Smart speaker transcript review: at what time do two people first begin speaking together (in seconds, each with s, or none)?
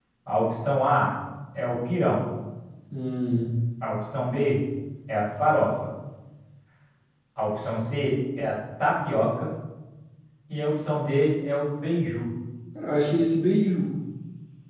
none